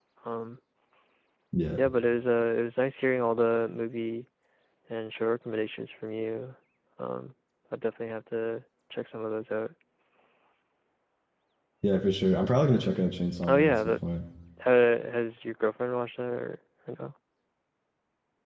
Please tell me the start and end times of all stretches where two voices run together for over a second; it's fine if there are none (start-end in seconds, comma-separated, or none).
none